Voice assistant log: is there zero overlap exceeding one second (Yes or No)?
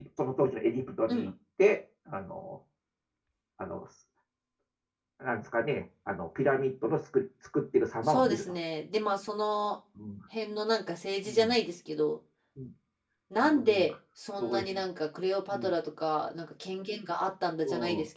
Yes